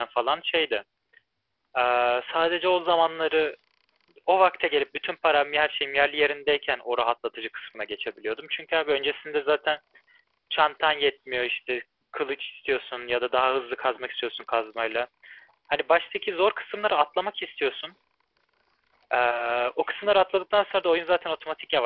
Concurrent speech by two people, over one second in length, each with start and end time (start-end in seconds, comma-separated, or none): none